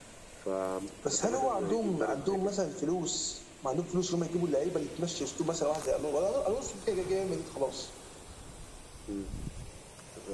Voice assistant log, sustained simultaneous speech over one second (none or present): present